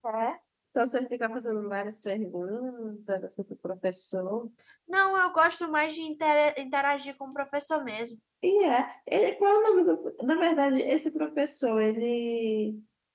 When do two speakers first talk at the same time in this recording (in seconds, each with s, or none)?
none